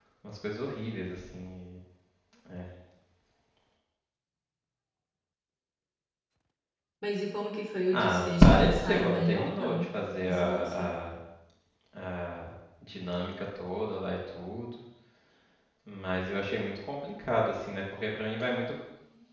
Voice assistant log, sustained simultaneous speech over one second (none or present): present